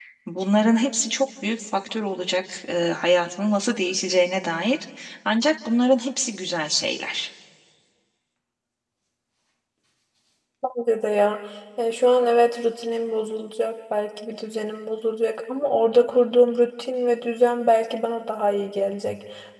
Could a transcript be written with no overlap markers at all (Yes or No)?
Yes